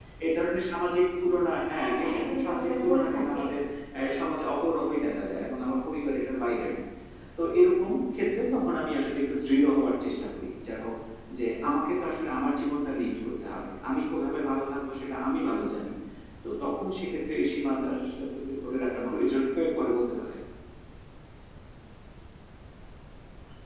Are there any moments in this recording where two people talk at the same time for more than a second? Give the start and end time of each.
1.8-3.4

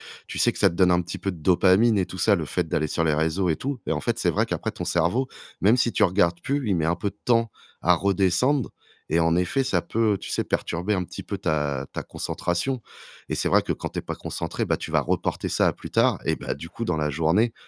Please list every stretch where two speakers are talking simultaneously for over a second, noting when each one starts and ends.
none

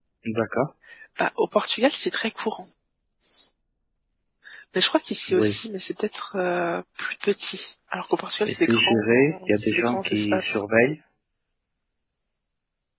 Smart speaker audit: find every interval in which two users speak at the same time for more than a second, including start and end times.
8.5-10.6

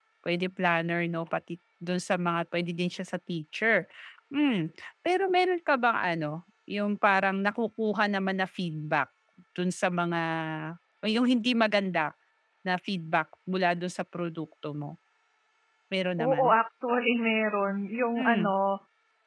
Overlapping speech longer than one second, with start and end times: none

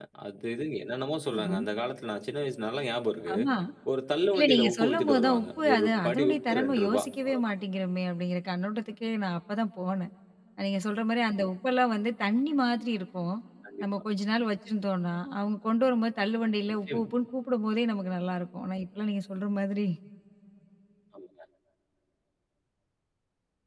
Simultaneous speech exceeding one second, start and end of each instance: 4.4-7.5

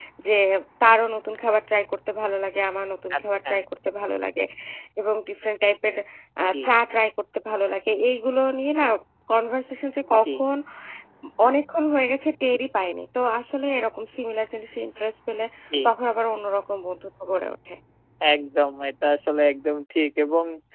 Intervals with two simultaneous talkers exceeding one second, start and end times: none

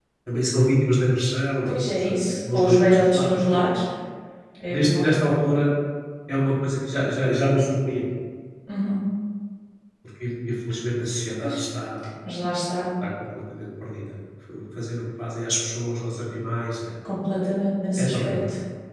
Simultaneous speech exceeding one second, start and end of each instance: 1.6-3.6

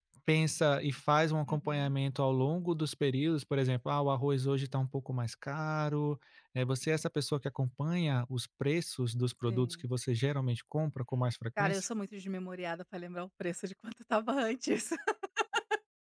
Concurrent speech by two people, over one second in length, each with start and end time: none

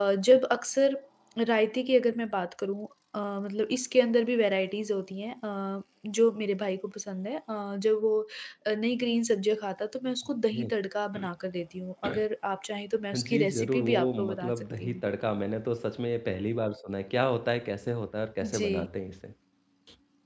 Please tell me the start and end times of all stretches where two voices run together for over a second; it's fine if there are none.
13.1-15.0

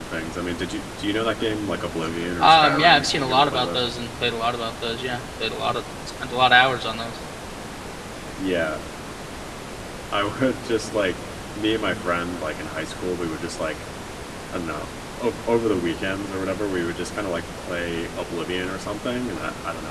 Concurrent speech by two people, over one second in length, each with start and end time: 2.4-3.8

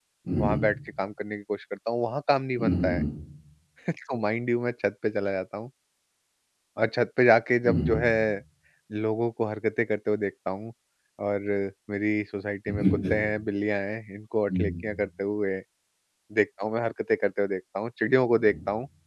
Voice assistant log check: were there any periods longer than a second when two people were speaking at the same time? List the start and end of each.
none

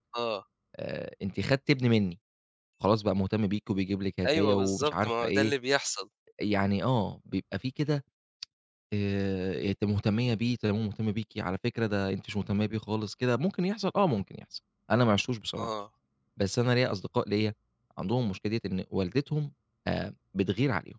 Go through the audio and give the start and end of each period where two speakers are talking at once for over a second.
4.3-5.5

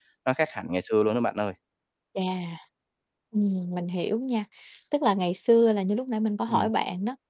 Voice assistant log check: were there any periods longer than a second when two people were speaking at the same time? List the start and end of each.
none

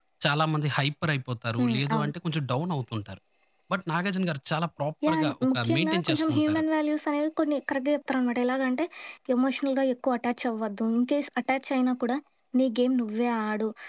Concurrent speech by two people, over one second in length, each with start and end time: 5.1-6.6

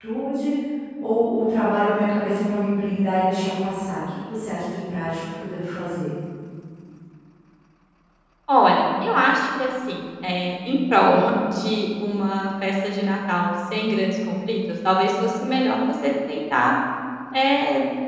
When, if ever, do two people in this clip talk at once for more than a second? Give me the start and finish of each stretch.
none

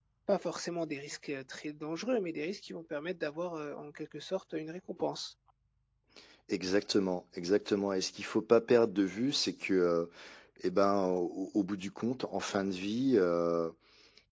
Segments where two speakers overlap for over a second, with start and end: none

